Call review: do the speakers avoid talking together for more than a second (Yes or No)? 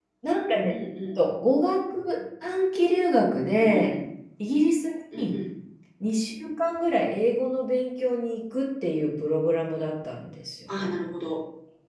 Yes